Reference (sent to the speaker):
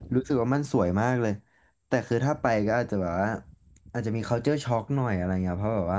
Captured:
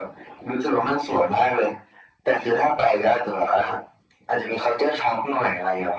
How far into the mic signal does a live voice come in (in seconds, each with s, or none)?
none